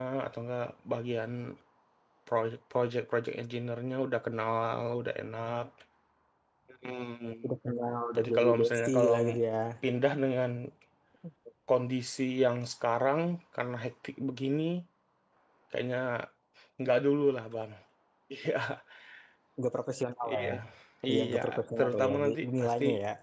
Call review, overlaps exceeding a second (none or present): present